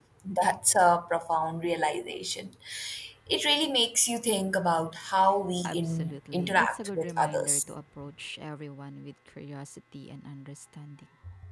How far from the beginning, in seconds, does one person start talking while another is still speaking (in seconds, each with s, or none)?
5.6 s